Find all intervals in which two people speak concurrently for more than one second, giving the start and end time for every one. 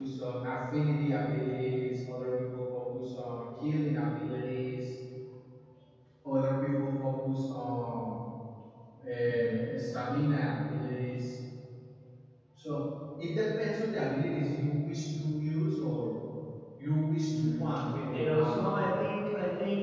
17.3-18.7

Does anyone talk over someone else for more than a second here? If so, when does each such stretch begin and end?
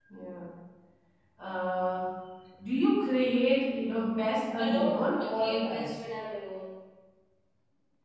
4.6-6.0

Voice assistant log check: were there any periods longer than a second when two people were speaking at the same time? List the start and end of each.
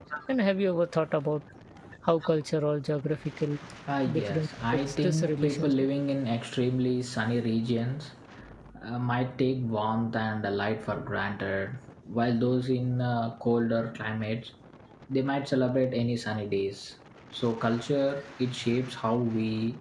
4.1-5.7

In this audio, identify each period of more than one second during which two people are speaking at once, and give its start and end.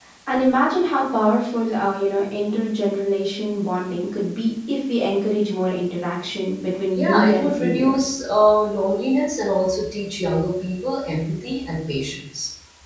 7.0-8.2

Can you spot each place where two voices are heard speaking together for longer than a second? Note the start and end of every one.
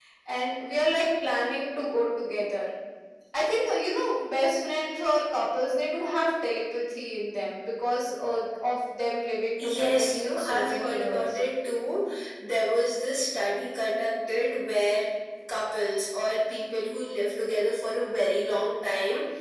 9.6-11.3

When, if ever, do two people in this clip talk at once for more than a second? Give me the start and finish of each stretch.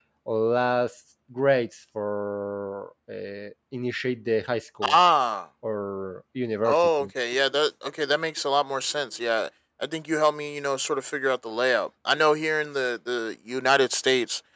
none

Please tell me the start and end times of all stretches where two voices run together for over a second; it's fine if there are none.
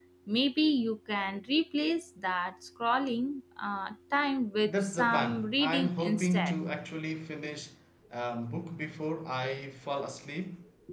4.7-6.5

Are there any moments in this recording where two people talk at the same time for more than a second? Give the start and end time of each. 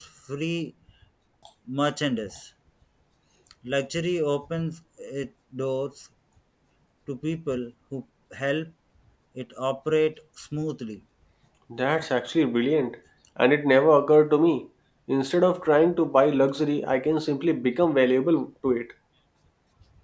none

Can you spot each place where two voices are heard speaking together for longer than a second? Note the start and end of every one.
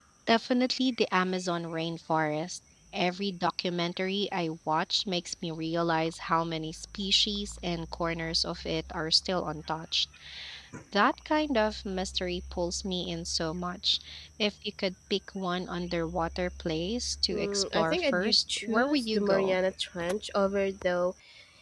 17.3-19.6

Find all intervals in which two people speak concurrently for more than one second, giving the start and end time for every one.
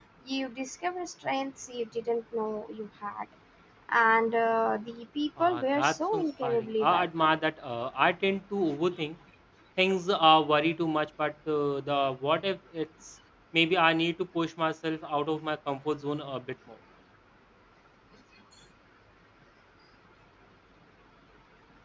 5.4-7.3

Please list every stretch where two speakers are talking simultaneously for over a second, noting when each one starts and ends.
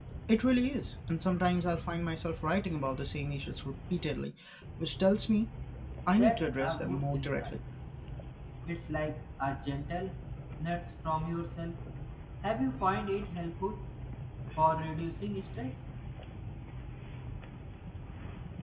6.2-7.6

